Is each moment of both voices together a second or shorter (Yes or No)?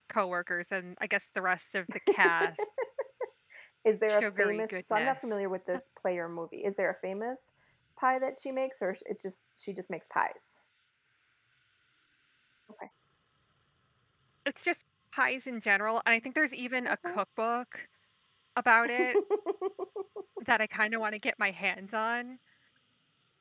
No